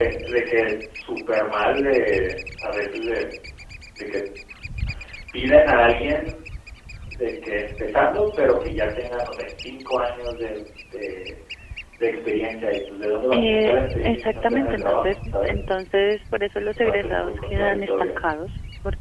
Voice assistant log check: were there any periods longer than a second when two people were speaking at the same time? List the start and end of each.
13.3-15.6, 16.8-18.1

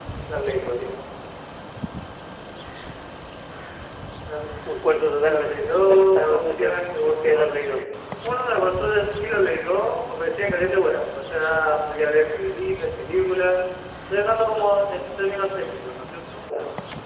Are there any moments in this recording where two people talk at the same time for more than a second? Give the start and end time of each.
5.2-7.8

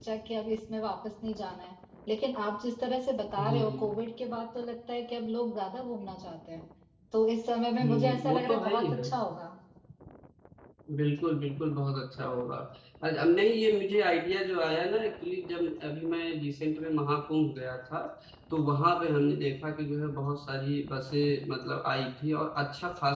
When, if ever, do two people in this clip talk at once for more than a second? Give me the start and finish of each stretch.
7.8-9.1

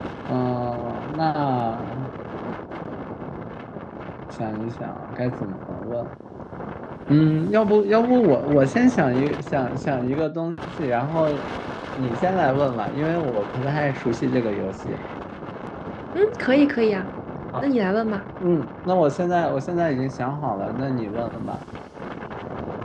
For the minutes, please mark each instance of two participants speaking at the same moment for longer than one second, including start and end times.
none

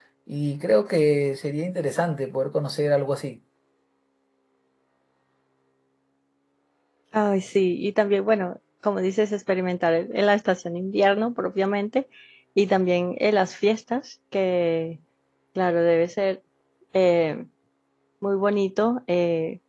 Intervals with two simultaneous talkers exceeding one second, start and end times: none

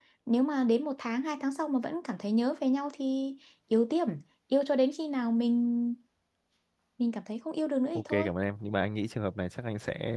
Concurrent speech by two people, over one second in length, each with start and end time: none

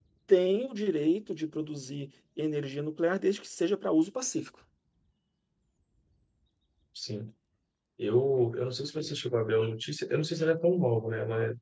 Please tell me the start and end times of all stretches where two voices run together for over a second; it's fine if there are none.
none

